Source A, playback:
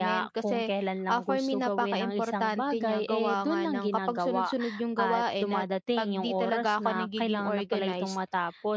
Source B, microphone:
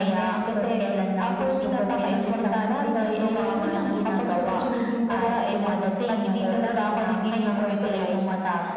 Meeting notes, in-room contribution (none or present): none